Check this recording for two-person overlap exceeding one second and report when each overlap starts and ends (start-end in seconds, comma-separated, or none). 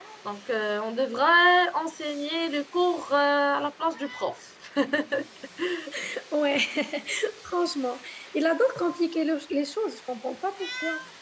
none